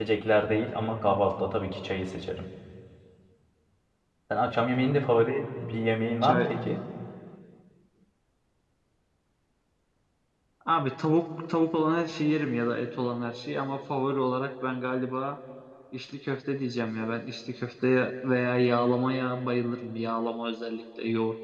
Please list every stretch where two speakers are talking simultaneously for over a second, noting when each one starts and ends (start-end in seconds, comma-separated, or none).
none